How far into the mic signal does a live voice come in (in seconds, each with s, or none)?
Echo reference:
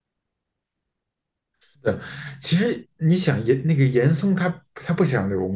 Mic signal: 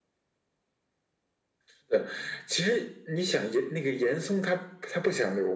none